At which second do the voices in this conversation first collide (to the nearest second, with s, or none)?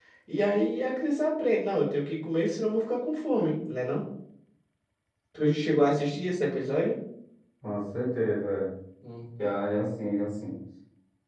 none